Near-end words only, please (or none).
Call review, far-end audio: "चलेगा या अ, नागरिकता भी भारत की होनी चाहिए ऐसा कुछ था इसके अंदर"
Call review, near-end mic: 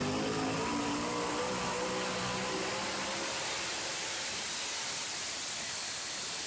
none